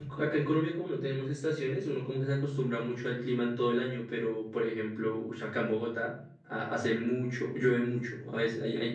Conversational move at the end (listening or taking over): listening